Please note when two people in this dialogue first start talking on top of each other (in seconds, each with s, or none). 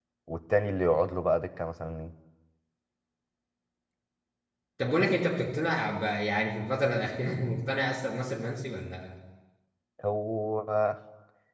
none